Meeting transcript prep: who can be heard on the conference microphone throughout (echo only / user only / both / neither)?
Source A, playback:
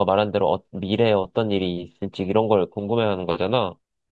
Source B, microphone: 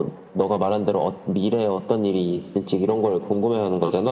echo only